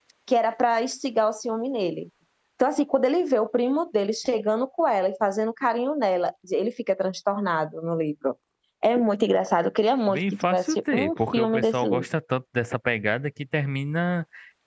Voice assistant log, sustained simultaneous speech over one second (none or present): present